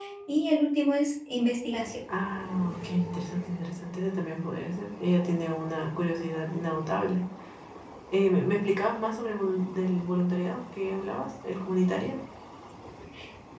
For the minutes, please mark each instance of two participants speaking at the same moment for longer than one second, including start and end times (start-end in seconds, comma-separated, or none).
none